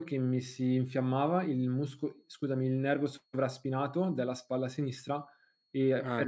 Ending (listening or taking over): listening